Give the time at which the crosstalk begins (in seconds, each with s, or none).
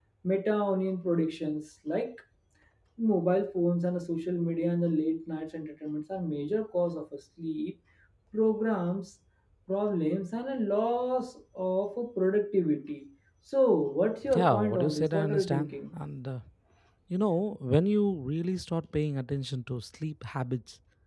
14.4 s